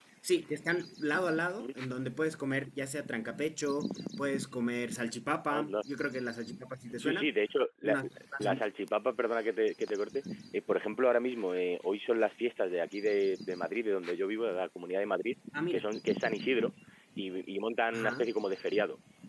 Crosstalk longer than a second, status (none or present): none